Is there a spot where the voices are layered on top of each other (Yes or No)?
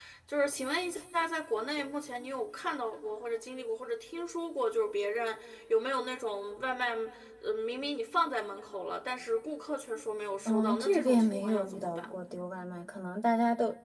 Yes